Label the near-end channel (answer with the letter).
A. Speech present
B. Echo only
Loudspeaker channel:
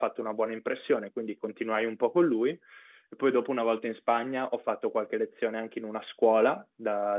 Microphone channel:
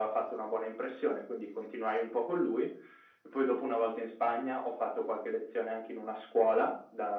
B